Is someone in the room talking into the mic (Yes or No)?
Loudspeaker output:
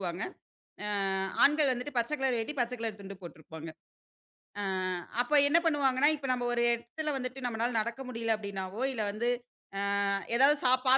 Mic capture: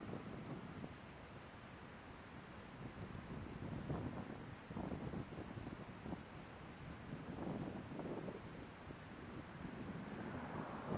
No